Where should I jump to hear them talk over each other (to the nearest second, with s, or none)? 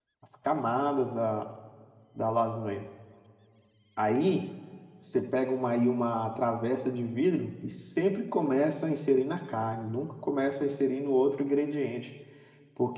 none